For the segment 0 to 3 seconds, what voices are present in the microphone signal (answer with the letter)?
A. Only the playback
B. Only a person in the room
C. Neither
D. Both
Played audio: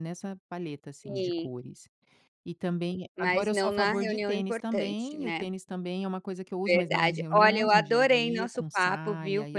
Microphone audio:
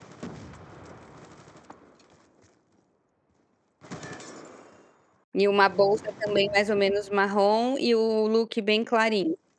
C